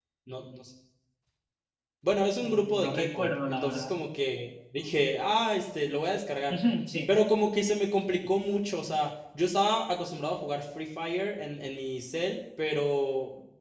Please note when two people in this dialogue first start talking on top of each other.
2.4 s

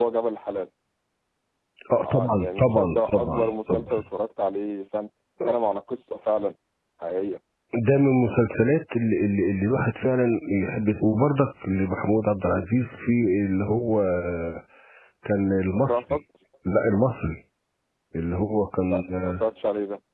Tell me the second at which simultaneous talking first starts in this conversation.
2.0 s

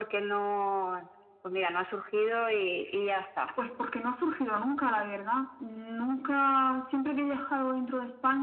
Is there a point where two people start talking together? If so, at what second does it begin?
none

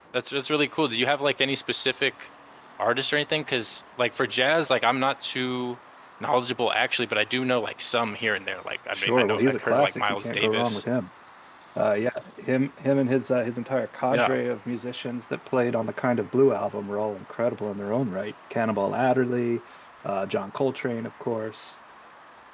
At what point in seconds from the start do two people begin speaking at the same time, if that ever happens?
8.9 s

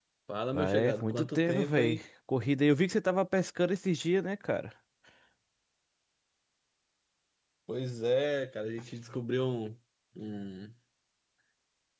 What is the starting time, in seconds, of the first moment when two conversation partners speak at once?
0.5 s

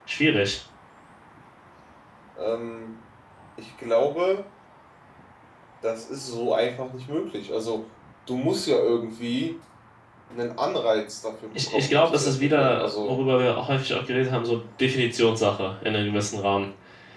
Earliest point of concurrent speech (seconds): 11.5 s

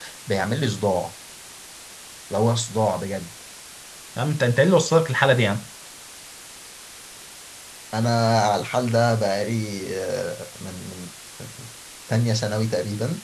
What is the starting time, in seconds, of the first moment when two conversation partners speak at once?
none

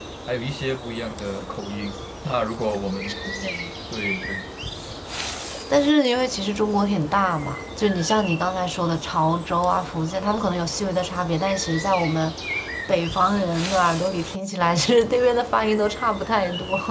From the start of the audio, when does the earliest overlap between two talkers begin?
none

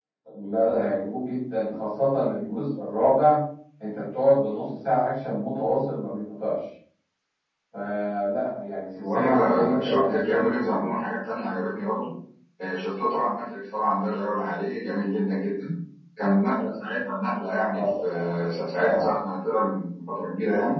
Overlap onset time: 9.0 s

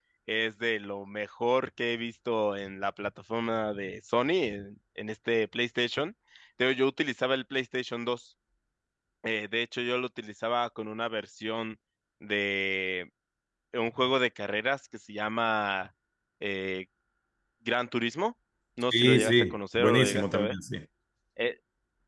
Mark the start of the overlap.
18.9 s

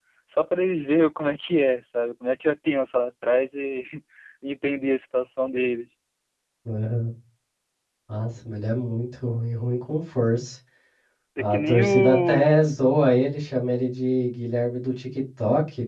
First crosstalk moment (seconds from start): 11.4 s

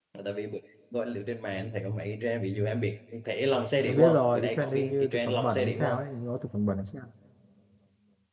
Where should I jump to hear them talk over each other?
3.9 s

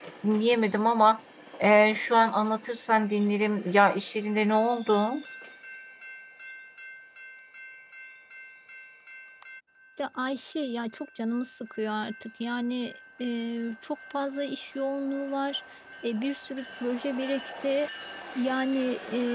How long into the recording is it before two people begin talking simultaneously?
none

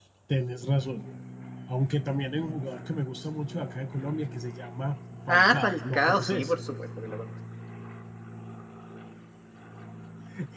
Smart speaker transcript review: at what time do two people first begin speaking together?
5.3 s

